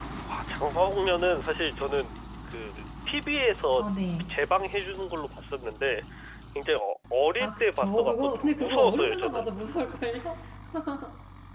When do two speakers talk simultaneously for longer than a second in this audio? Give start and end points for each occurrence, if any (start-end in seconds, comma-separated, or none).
7.4-9.4